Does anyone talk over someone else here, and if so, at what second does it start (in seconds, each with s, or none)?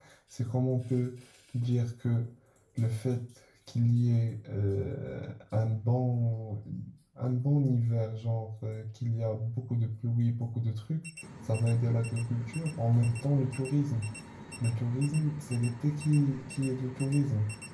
none